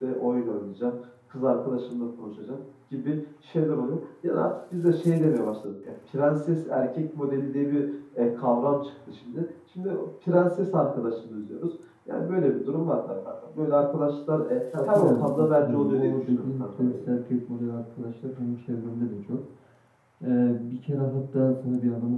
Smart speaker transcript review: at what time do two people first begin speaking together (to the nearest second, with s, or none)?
15 s